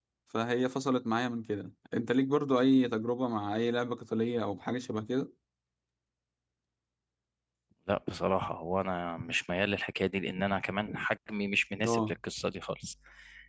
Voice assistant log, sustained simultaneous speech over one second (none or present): none